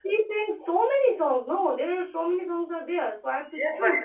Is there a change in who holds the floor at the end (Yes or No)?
Yes